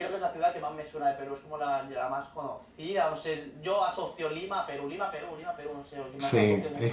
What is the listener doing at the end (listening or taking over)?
taking over